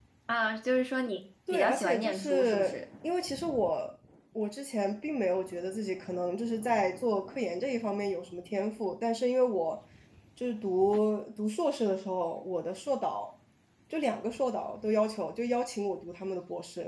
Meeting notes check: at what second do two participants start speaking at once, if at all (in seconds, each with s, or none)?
1.5 s